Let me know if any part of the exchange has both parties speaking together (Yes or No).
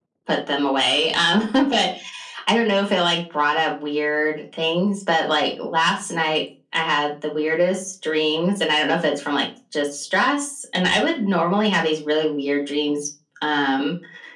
No